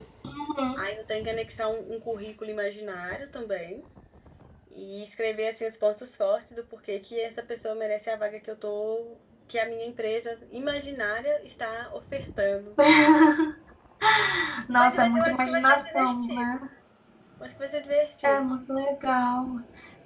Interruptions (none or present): present